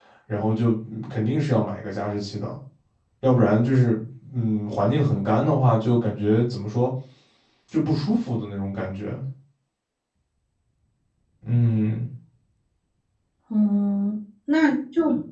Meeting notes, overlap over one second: none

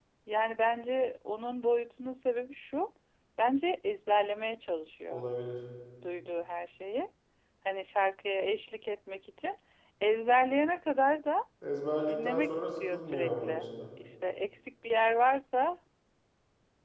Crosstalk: present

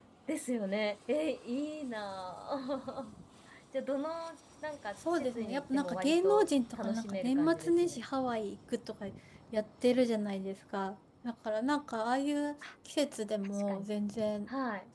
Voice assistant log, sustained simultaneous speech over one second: present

